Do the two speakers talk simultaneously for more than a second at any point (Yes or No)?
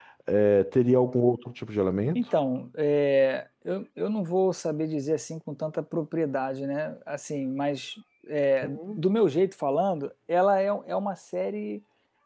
No